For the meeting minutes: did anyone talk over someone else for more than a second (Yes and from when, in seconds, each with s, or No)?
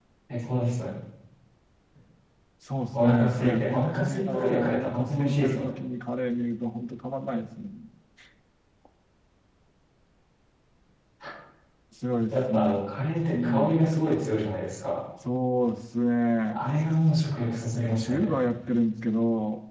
Yes, from 2.9 s